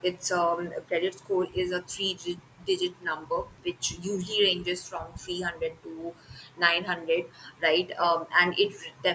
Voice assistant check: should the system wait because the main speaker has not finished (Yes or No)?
Yes